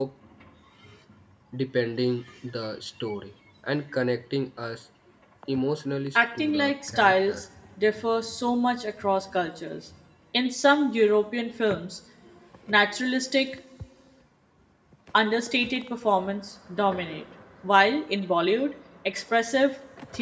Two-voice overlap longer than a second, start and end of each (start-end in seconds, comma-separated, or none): 6.2-7.4